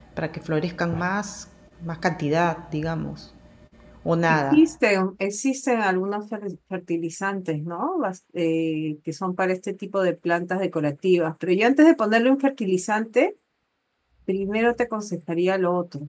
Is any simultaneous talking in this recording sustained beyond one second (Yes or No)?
No